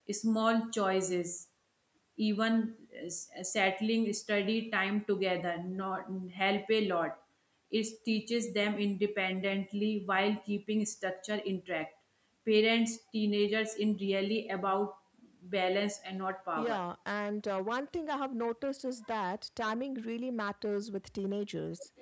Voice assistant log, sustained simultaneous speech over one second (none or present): none